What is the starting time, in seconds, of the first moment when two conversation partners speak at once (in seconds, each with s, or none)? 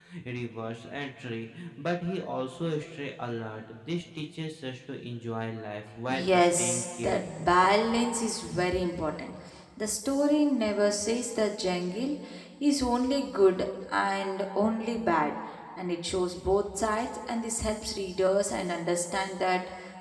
6.1 s